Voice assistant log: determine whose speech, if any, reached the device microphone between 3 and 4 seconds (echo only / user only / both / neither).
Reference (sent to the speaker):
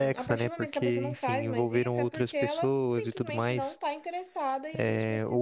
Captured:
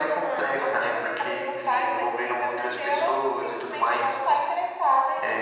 echo only